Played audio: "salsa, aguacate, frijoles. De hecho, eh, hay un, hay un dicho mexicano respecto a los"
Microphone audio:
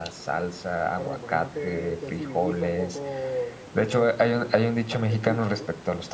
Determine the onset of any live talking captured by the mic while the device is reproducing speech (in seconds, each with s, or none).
0.9 s